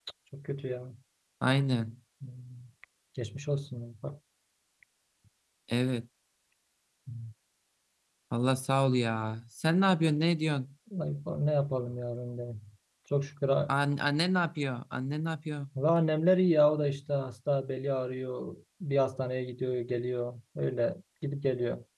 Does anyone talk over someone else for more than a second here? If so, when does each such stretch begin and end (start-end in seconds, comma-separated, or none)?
none